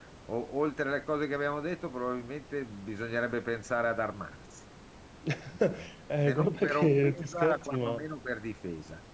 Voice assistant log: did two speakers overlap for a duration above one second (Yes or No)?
Yes